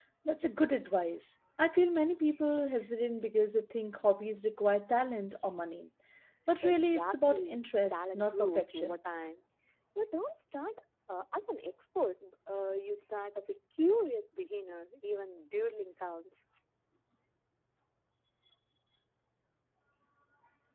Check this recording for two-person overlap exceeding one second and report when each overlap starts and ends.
6.6-9.0

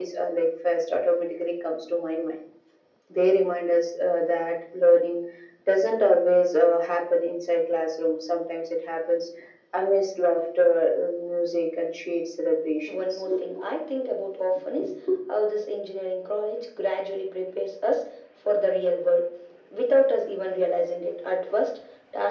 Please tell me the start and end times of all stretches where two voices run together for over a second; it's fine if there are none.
none

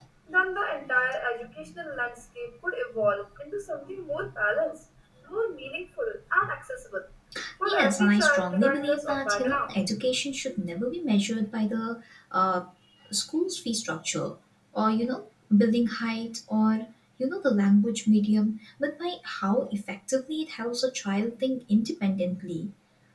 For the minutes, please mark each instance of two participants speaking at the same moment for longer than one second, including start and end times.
7.6-9.8

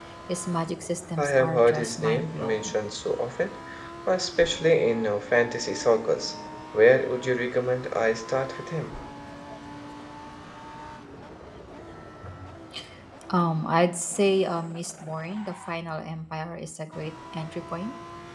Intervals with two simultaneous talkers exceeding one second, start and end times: 1.2-2.7

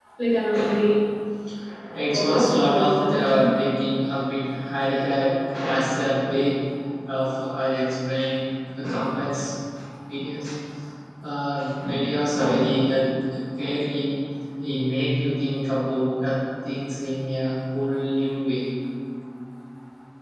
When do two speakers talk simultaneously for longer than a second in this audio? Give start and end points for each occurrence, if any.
2.1-3.5

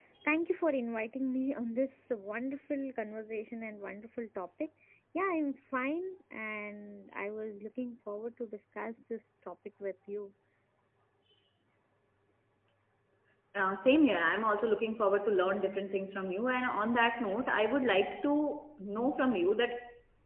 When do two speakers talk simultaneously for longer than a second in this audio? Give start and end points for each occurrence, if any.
none

